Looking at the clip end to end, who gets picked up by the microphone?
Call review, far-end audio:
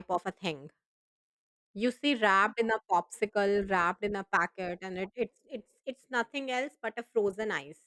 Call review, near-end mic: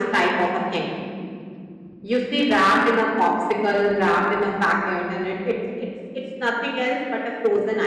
echo only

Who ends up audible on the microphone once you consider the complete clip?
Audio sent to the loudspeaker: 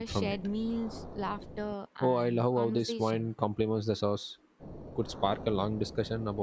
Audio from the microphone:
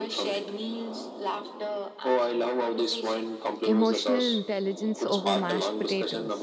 both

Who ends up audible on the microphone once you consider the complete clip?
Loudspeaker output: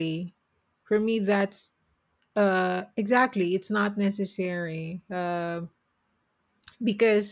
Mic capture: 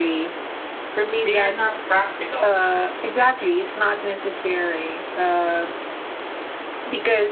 both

